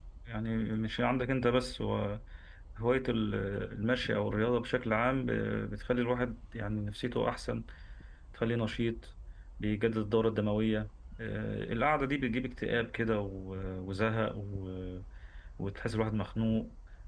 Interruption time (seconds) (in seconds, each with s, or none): none